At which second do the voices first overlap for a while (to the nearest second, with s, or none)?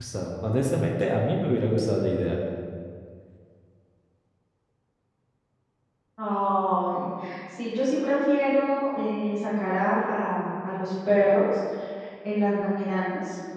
none